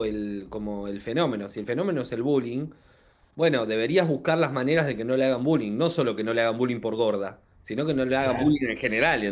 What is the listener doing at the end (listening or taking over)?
listening